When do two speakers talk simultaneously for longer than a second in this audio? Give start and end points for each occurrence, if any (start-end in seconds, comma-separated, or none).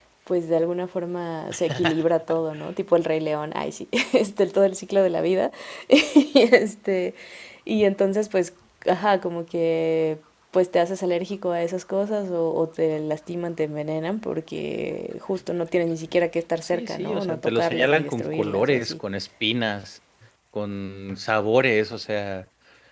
16.6-18.9